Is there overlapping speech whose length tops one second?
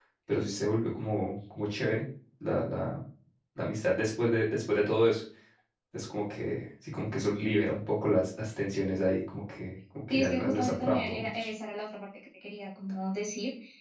Yes, from 10.1 s

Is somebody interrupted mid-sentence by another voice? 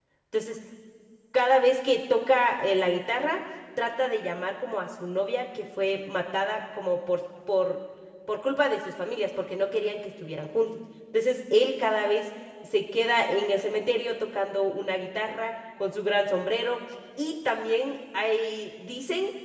No

